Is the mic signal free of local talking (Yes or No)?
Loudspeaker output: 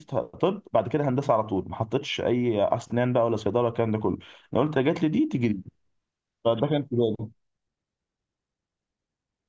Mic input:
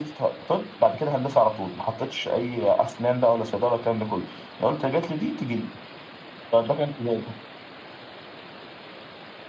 Yes